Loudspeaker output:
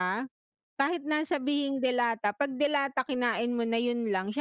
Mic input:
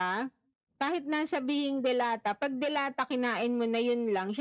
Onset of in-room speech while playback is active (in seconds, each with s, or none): none